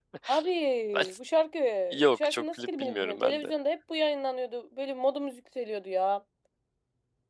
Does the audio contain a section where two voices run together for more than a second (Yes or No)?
Yes